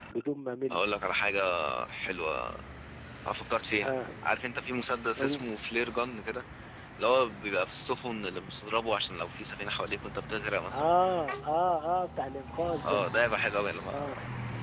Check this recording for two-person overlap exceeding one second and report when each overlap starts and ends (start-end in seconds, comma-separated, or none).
none